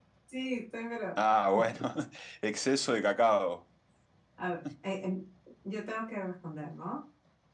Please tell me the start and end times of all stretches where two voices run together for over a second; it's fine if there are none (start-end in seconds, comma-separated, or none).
none